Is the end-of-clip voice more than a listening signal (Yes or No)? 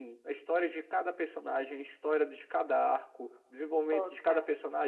No